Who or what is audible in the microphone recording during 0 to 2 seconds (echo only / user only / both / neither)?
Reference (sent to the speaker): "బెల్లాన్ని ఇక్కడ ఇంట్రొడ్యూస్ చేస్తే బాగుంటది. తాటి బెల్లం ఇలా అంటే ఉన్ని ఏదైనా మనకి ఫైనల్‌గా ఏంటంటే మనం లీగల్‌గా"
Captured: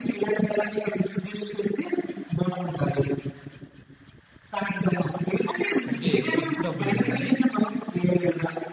echo only